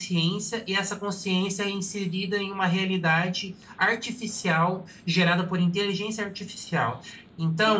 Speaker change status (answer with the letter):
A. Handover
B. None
B